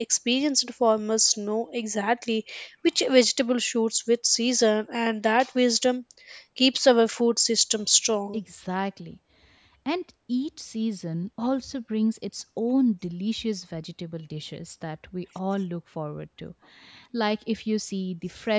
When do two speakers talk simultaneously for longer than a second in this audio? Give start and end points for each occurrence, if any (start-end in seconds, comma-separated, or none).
none